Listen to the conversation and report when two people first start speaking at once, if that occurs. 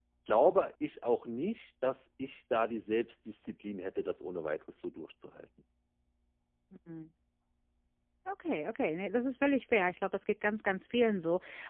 none

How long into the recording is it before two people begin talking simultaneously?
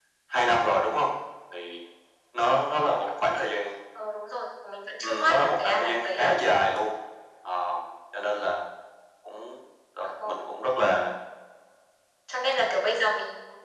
5.0 s

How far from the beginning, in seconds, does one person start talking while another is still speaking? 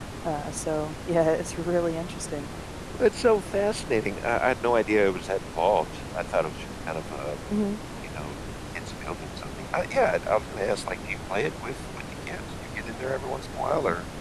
none

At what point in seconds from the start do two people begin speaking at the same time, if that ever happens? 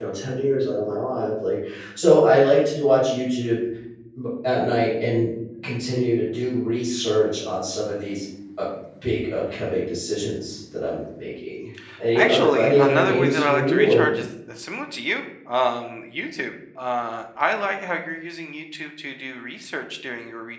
12.2 s

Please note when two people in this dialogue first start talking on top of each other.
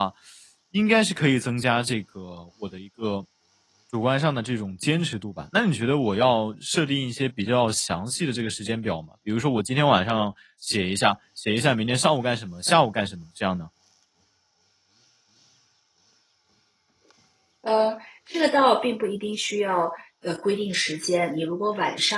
none

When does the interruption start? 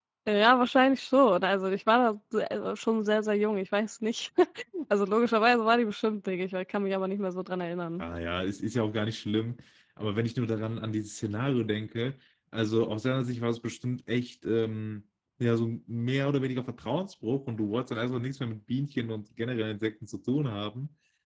none

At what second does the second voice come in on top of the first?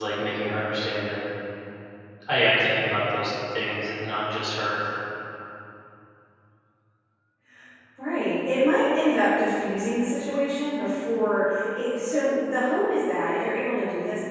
none

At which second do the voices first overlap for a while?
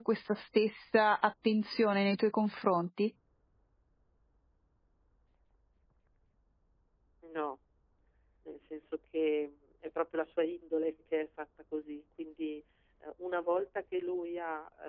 none

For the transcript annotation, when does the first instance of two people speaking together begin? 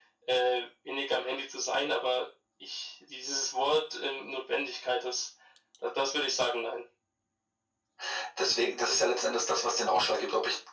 none

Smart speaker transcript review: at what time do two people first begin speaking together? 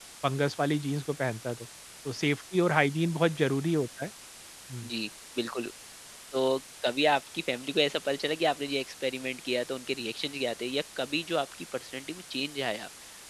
none

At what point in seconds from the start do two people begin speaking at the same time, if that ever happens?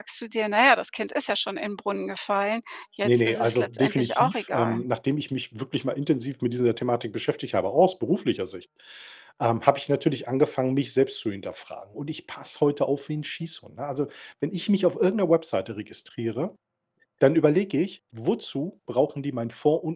3.0 s

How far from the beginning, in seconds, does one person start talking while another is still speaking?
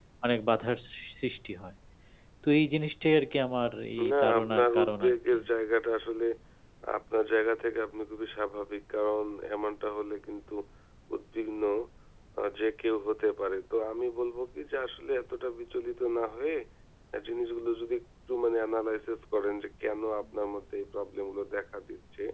4.0 s

